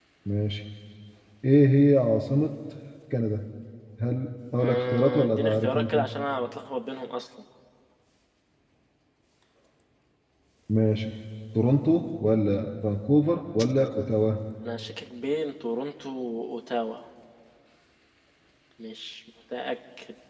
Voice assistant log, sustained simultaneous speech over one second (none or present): present